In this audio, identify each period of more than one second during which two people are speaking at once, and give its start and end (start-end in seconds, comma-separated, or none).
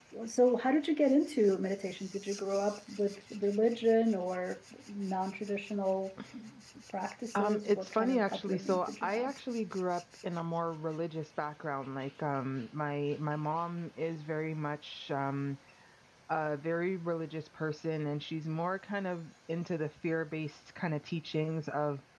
7.3-9.1